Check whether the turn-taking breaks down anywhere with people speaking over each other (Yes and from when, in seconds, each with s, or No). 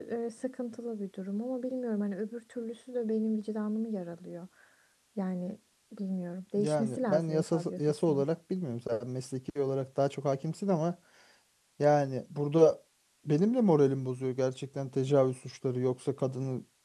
Yes, from 6.6 s